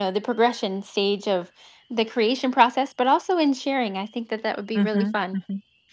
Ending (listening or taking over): taking over